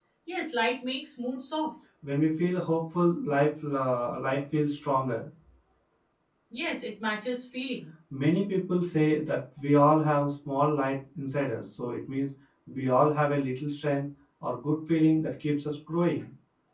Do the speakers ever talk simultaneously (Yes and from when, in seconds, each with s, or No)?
No